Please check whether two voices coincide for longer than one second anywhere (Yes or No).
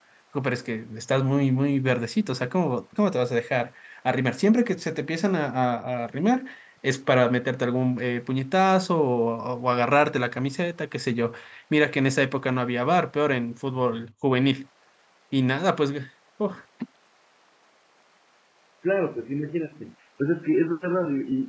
No